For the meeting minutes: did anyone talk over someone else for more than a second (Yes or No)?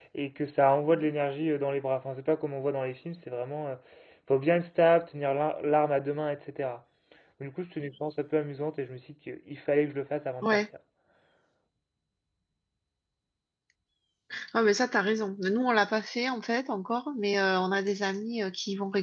No